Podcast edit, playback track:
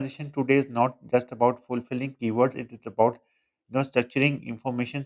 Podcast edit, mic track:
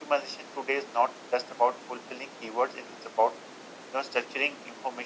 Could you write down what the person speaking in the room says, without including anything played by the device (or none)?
none